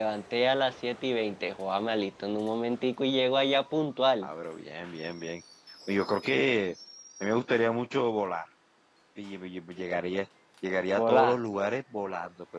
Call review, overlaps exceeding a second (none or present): none